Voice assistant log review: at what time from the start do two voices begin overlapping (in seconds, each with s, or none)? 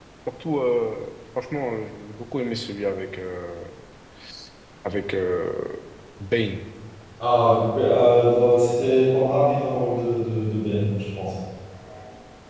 none